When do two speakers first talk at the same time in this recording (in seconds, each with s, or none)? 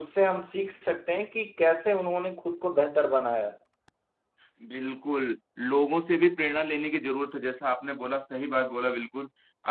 none